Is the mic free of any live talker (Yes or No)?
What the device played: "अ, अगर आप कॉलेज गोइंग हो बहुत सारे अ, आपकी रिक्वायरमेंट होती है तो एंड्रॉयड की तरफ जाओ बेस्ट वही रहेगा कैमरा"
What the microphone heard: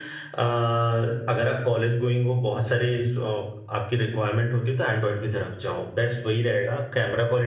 Yes